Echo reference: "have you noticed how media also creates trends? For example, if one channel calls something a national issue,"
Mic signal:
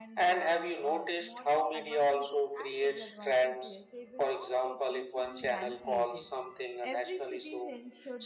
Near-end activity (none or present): present